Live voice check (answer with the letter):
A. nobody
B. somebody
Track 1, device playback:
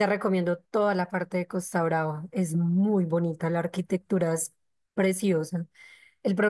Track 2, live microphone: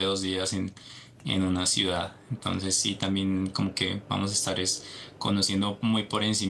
B